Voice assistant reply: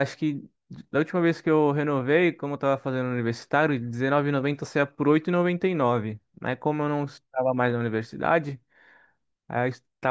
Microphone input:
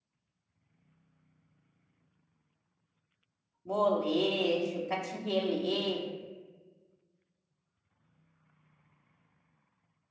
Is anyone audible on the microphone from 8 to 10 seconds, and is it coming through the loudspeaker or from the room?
neither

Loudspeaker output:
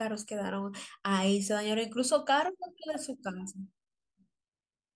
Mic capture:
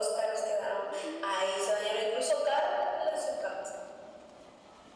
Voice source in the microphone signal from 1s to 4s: echo only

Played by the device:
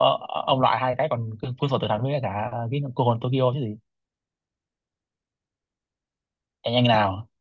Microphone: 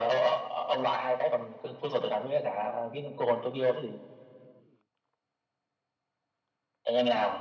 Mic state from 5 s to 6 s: neither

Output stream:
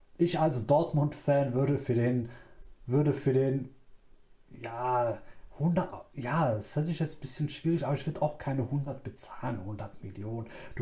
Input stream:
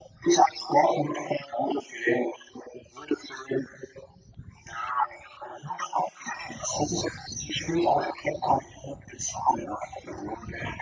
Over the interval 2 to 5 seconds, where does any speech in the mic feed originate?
echo only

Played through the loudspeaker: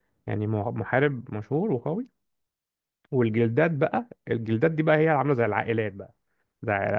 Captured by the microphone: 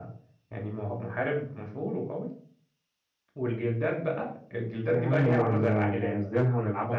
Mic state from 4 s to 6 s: both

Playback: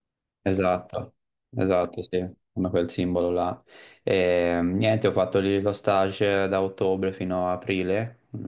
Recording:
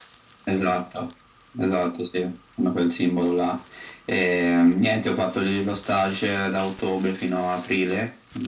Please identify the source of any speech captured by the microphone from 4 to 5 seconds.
echo only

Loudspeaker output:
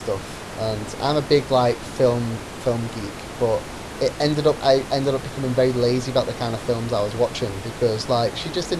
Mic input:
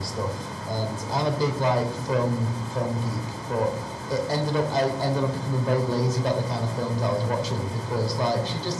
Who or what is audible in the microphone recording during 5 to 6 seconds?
echo only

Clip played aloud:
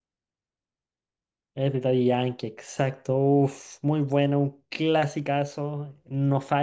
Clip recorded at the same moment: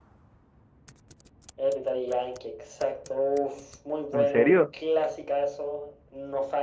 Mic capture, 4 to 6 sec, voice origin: both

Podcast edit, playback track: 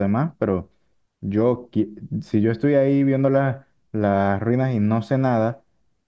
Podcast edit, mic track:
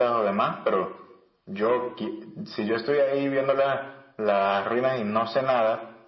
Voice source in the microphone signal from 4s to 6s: echo only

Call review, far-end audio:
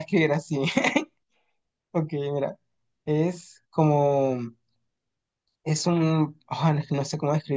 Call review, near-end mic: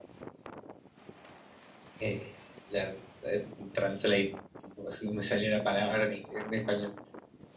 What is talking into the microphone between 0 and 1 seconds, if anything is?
neither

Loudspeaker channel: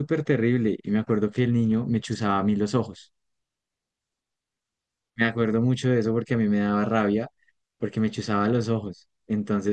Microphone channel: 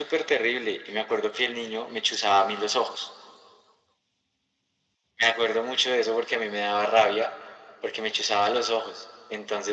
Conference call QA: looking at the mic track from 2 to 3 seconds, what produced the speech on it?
echo only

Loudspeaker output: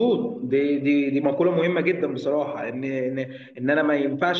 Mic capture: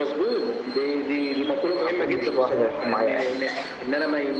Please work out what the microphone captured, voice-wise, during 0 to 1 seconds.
echo only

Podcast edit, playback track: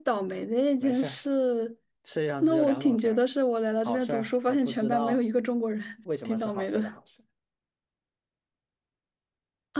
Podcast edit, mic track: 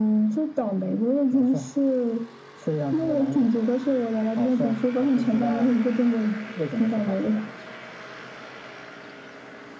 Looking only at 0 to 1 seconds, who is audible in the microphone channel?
echo only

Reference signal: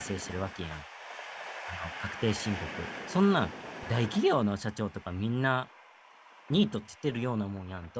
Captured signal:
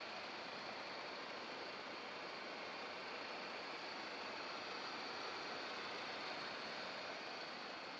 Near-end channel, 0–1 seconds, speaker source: neither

